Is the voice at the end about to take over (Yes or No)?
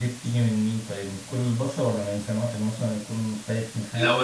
Yes